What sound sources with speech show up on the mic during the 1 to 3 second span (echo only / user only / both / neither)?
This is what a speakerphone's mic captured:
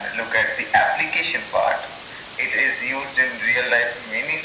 echo only